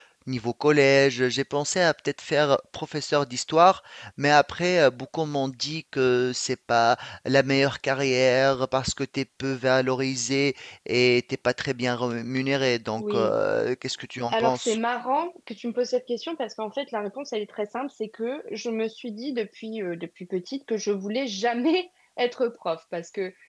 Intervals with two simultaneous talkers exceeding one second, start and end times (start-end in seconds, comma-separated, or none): none